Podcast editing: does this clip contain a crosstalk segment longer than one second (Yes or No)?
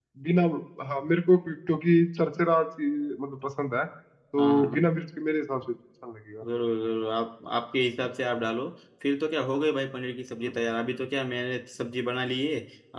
No